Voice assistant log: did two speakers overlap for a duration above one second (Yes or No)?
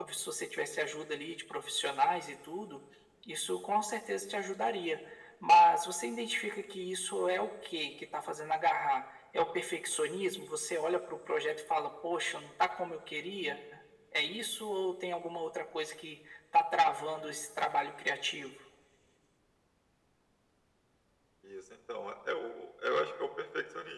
No